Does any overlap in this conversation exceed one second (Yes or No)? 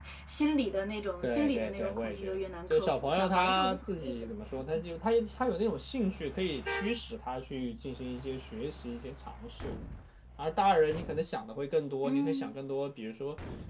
Yes